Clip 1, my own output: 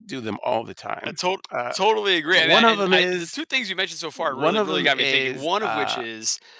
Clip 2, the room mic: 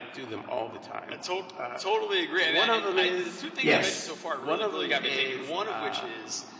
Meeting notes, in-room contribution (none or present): present